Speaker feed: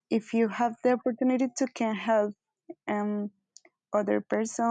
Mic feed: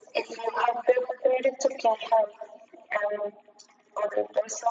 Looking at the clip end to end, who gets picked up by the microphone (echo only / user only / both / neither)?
echo only